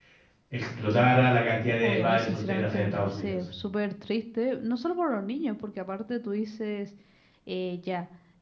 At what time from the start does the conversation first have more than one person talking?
1.8 s

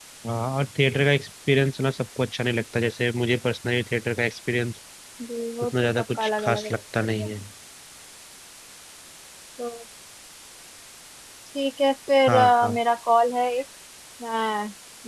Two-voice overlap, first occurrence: 5.8 s

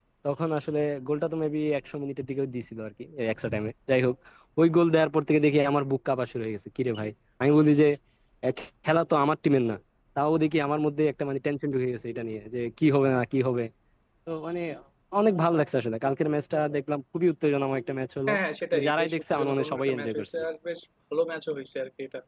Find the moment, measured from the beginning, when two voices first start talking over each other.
18.7 s

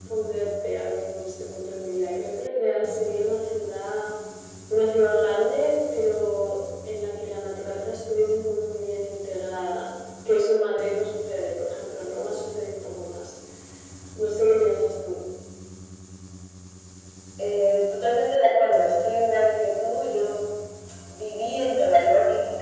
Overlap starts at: none

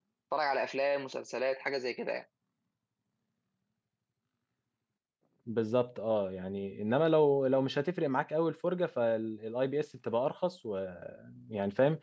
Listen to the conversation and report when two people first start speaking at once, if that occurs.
none

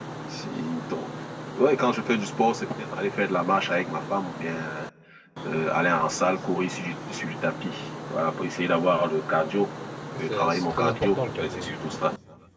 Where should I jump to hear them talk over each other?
10.3 s

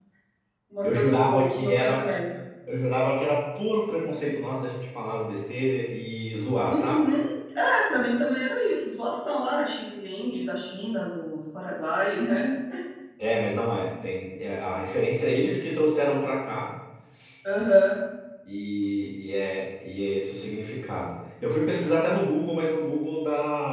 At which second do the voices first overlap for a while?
0.8 s

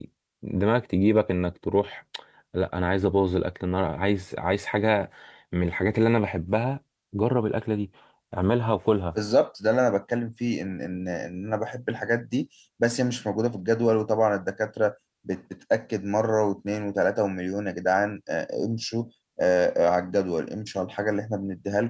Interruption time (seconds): none

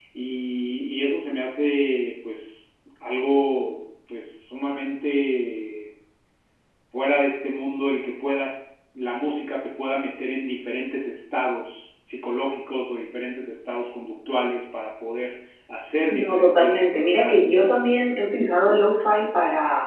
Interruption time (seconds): 16.1 s

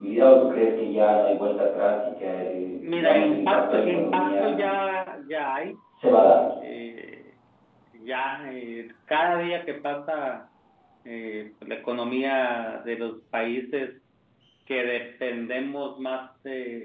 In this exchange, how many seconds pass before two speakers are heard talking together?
2.8 s

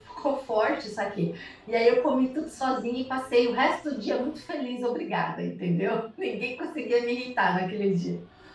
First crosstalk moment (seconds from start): none

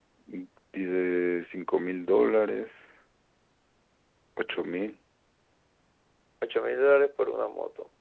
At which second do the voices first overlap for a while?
none

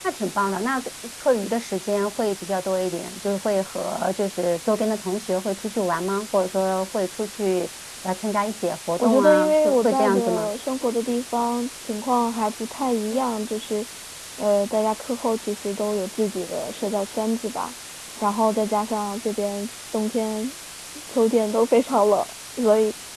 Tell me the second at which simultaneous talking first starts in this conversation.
9.0 s

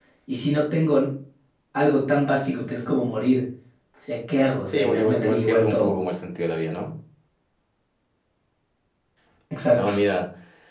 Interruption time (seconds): 4.7 s

